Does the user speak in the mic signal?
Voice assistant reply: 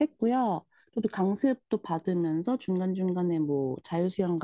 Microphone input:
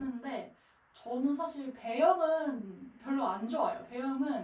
Yes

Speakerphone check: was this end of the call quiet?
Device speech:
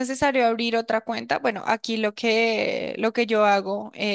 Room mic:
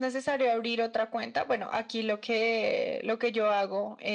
Yes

